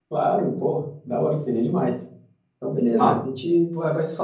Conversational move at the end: listening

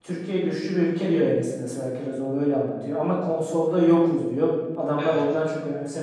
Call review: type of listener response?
listening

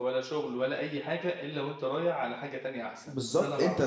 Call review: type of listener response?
taking over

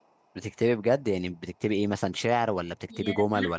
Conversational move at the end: taking over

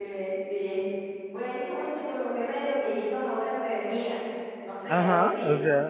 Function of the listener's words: taking over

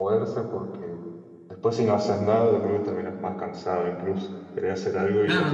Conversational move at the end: taking over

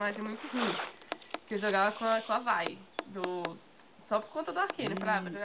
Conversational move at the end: listening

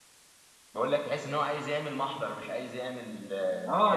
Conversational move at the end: taking over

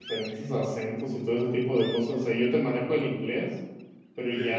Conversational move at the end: listening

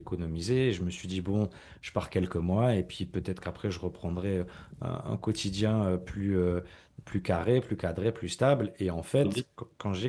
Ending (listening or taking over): listening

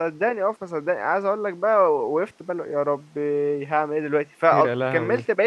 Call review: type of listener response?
listening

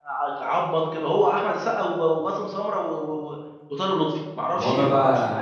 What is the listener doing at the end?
taking over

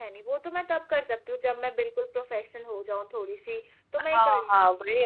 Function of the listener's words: taking over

